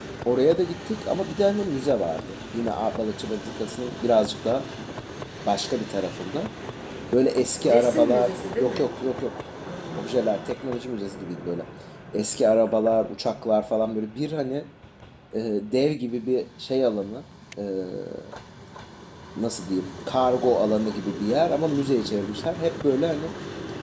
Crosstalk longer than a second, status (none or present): present